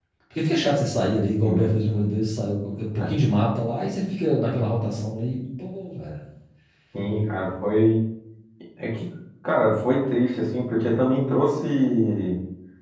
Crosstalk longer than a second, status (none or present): none